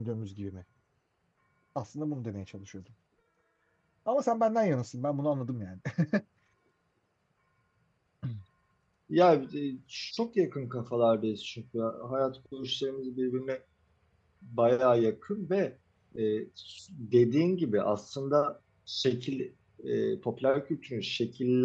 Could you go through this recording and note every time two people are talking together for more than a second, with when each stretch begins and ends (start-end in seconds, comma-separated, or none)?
none